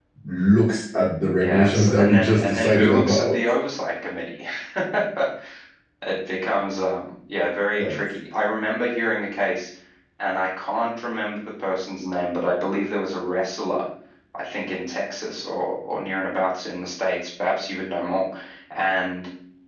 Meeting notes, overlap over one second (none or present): present